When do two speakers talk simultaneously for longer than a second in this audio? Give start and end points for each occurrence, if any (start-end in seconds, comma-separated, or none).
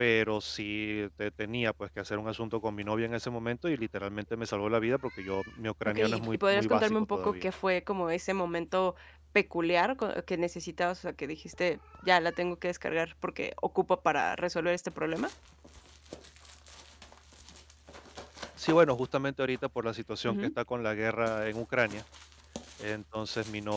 5.8-7.4